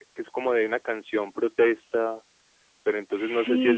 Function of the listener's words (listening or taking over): listening